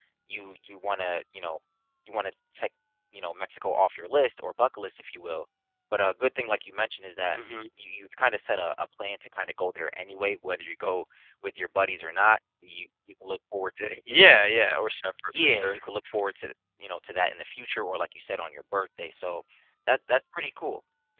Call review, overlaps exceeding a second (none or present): none